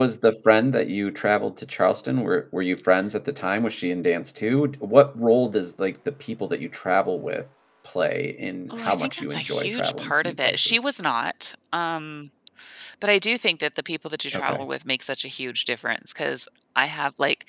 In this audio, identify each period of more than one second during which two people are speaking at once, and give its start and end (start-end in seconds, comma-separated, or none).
8.7-10.8